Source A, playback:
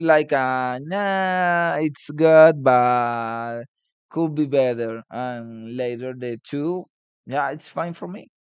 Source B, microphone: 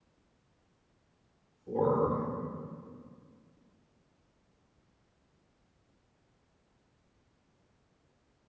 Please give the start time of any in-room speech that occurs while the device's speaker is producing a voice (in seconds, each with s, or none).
1.7 s